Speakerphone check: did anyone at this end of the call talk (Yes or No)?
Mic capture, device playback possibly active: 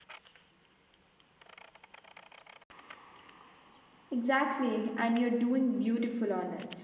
Yes